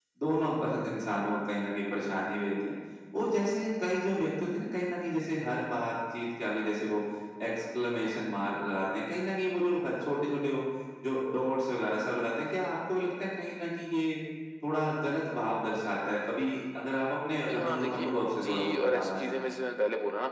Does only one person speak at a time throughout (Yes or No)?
No